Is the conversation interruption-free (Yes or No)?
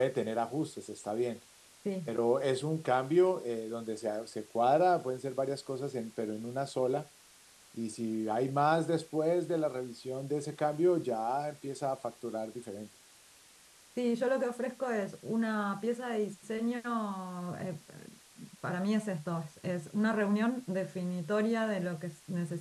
Yes